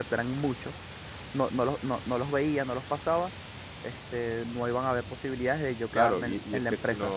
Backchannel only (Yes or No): No